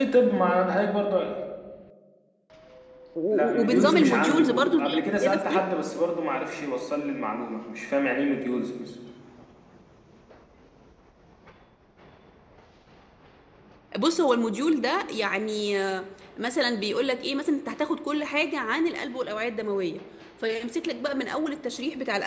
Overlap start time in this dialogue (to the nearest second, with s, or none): 3 s